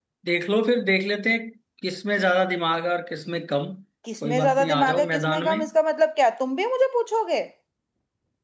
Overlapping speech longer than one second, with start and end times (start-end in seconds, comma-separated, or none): 4.2-5.6